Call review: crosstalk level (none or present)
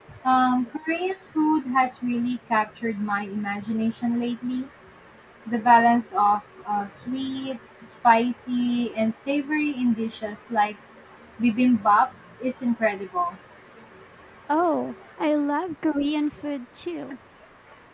none